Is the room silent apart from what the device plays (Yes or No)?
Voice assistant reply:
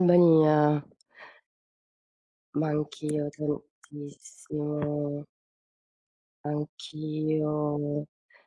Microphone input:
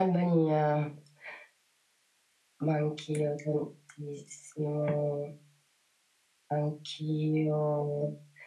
Yes